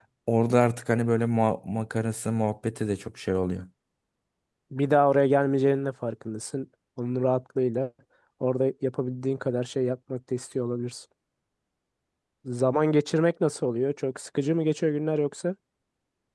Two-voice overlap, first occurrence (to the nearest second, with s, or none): none